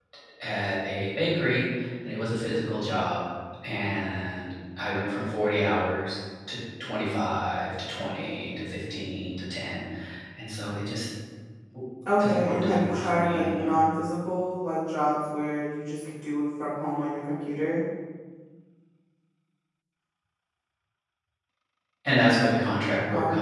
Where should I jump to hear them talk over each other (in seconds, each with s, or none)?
12.2 s